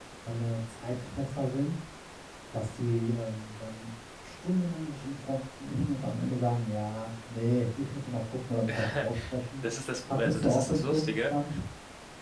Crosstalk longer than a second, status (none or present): present